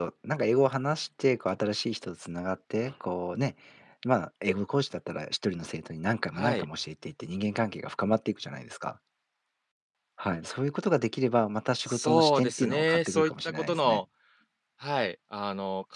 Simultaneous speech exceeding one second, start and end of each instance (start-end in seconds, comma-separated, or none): 11.8-14.0